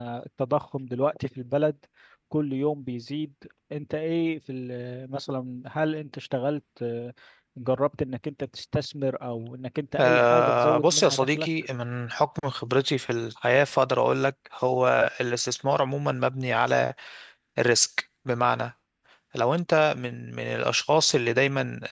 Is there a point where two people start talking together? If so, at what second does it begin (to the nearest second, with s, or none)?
10 s